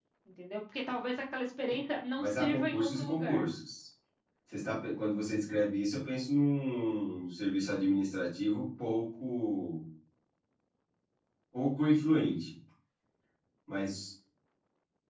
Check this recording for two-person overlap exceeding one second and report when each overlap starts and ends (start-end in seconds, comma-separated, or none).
2.2-3.5